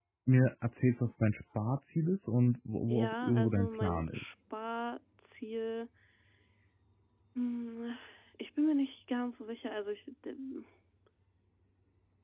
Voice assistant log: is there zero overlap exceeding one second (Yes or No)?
No